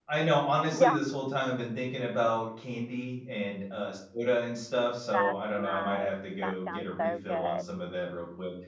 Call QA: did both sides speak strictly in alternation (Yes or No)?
No